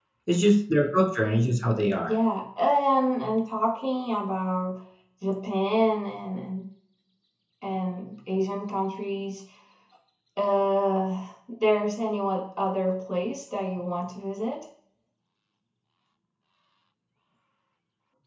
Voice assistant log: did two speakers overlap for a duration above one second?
No

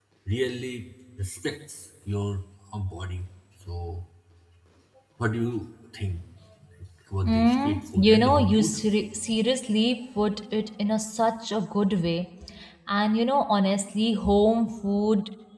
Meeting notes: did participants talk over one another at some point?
Yes, from 7.2 s

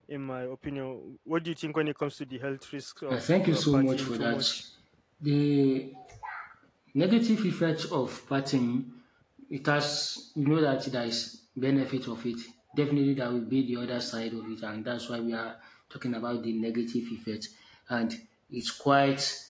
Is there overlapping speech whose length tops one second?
Yes, from 3.1 s

